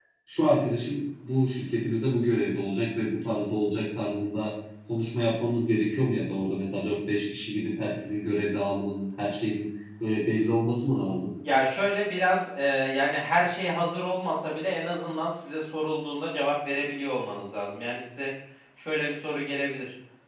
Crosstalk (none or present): none